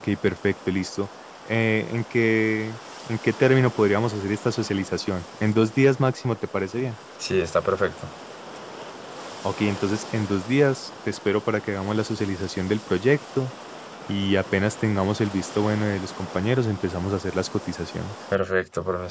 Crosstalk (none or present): none